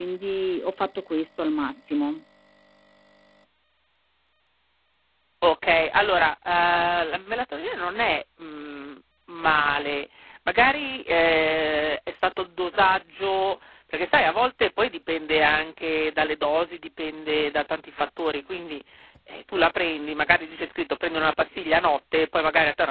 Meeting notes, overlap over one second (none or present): none